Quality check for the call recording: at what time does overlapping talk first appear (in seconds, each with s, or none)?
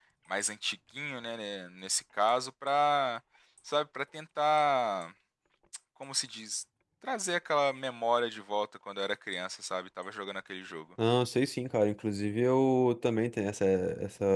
none